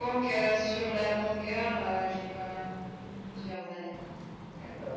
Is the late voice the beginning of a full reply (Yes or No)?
Yes